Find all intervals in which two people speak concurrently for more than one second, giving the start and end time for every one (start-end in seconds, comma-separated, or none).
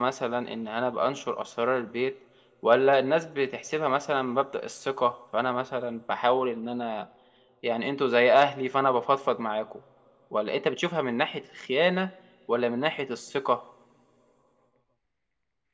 none